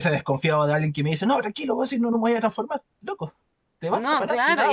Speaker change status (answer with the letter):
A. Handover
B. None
A